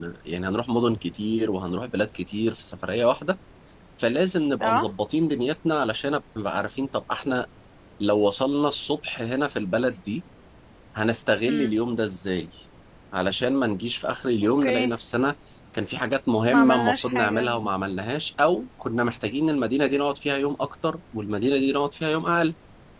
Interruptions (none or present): present